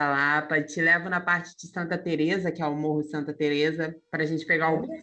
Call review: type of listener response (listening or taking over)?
taking over